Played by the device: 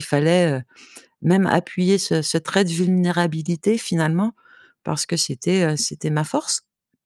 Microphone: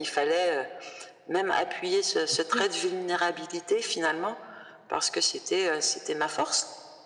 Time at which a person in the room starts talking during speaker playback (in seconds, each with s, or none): 2.2 s